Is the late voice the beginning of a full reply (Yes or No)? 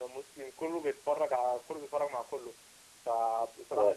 No